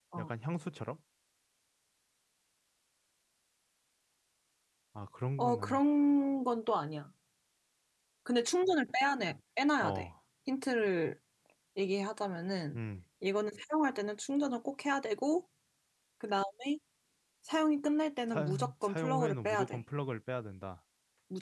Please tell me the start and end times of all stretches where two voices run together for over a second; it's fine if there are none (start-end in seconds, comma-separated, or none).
18.3-19.8